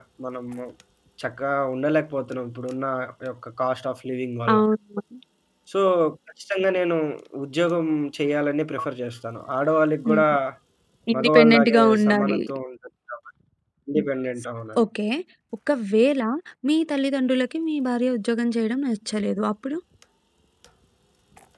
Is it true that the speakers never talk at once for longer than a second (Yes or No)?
No